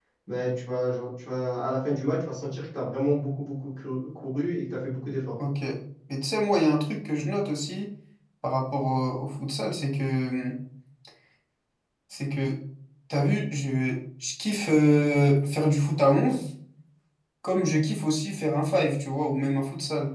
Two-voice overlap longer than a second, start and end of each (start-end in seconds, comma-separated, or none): none